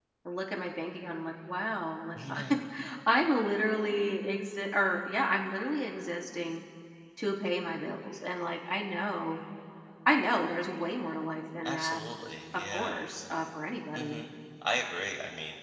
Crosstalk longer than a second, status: none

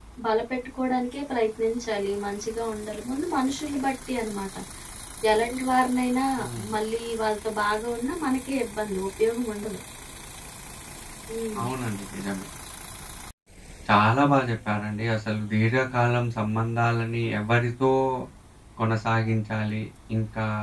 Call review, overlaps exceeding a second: none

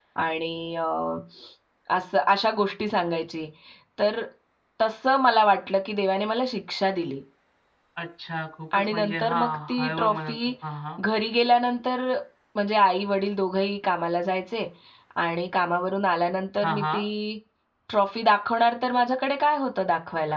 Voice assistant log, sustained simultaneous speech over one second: present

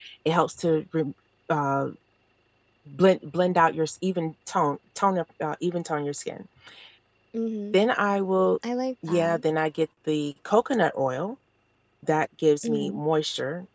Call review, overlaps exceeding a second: none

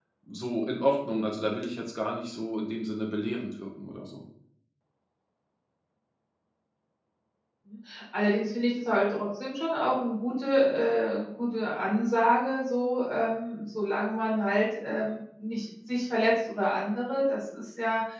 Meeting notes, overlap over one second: none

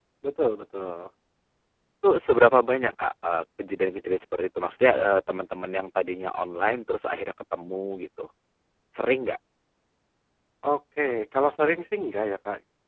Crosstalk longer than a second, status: none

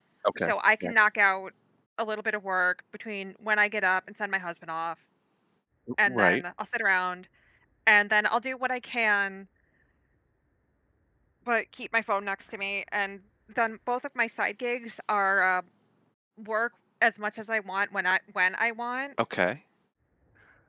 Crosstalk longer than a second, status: none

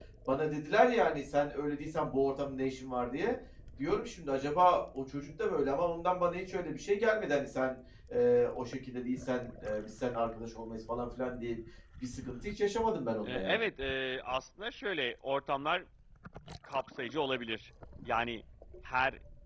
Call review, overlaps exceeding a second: none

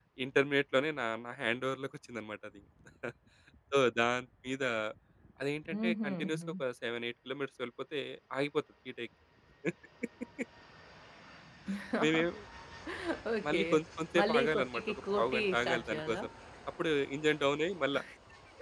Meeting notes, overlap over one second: present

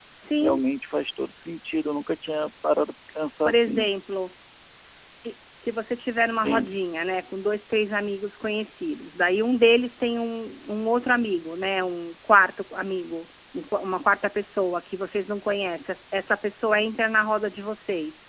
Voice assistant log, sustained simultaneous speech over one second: none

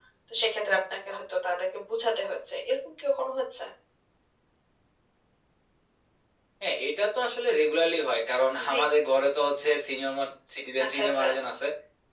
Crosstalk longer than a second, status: none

